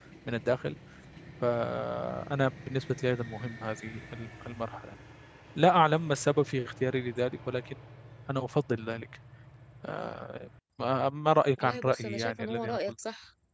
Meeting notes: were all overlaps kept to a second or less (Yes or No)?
No